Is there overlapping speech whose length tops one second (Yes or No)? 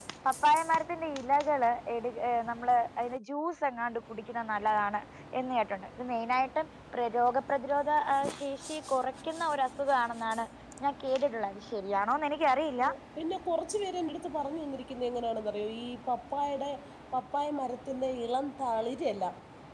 No